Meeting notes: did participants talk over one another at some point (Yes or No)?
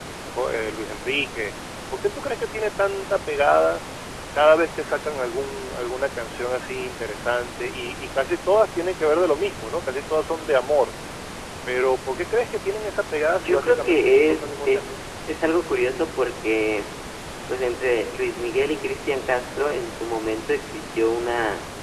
Yes